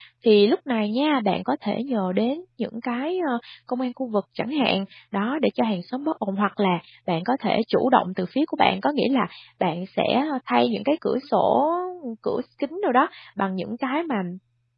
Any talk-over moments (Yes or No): No